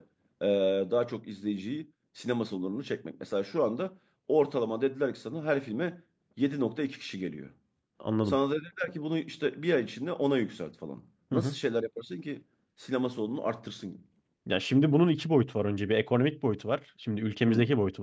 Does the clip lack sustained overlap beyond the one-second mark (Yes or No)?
Yes